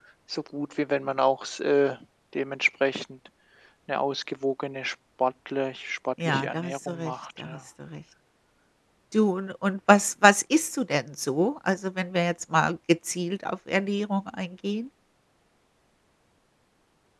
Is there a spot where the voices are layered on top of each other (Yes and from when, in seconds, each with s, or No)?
Yes, from 6.2 s